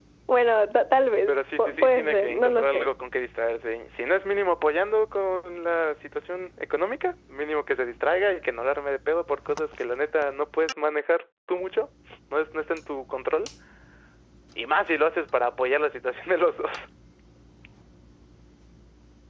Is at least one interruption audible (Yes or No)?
Yes